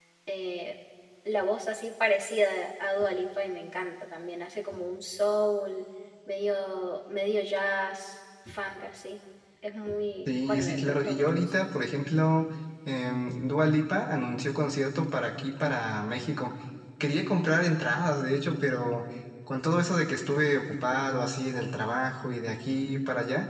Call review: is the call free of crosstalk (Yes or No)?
No